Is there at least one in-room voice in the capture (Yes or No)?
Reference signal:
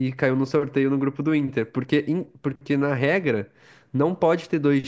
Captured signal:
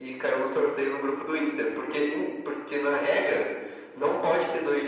No